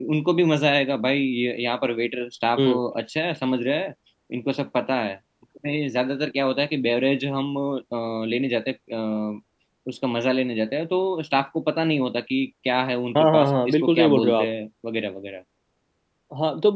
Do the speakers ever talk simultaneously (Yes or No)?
Yes